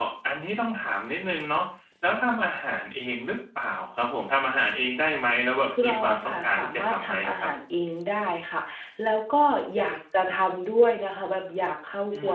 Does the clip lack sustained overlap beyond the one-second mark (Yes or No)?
No